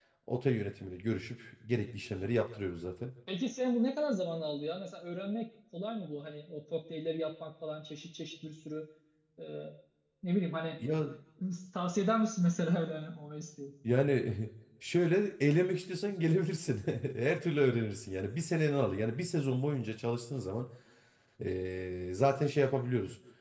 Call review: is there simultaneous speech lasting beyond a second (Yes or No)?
No